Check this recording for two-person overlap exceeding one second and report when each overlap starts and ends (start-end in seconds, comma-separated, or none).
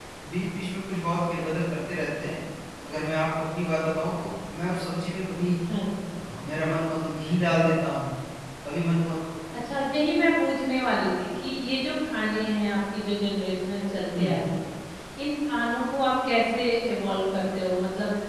none